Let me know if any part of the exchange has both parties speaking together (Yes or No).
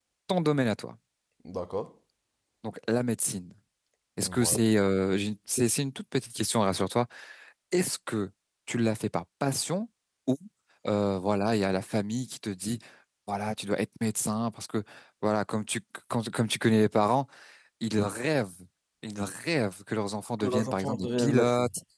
Yes